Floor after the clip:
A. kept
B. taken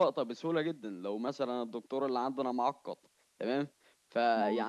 A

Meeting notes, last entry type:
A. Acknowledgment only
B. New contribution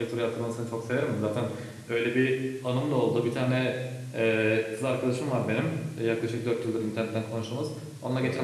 A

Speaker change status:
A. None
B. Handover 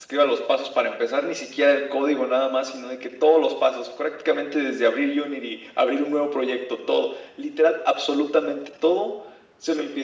A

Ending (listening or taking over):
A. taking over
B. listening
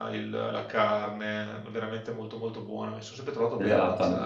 A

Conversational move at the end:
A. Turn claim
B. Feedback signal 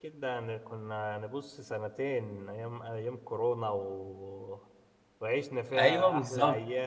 B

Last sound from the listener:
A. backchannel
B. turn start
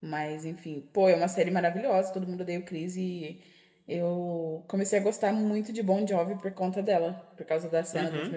B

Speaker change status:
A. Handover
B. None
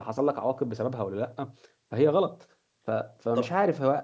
B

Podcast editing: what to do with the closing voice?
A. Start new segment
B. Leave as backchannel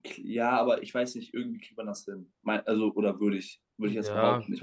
A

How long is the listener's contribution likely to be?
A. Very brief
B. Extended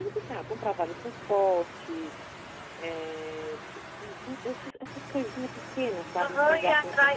B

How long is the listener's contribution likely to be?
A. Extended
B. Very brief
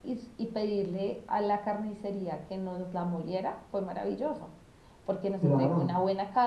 B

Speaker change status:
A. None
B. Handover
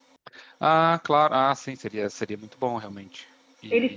B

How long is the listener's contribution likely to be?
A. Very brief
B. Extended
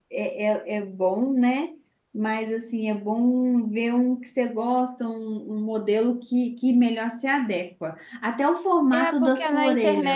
B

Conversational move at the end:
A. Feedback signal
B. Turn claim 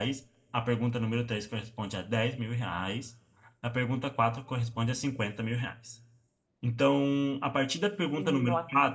A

